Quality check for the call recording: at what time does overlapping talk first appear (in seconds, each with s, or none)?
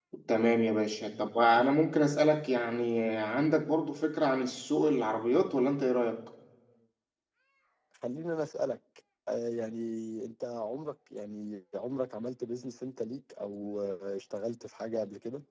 none